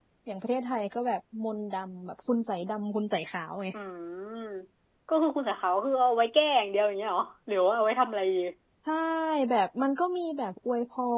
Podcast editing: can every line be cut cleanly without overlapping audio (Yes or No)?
Yes